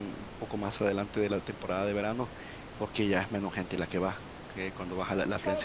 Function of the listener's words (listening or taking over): taking over